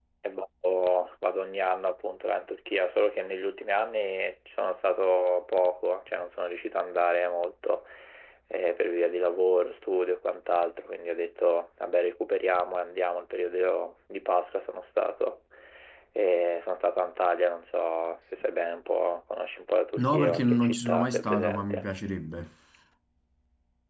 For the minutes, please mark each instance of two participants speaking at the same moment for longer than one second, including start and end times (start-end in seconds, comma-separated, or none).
20.0-21.9